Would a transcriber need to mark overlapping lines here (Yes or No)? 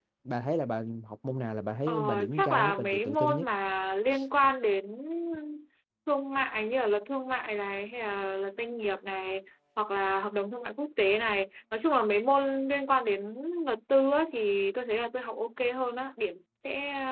Yes